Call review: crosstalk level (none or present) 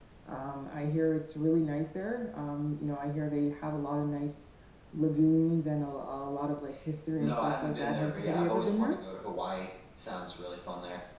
present